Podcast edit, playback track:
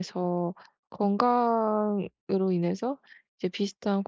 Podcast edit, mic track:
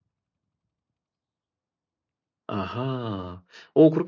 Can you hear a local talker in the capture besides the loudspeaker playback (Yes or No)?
Yes